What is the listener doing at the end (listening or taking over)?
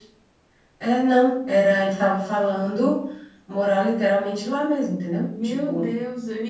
taking over